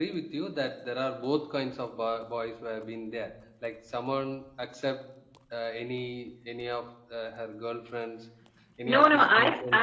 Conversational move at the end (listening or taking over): taking over